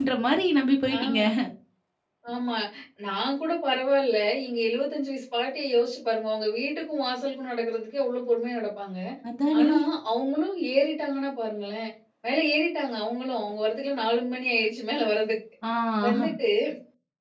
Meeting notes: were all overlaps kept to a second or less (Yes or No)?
Yes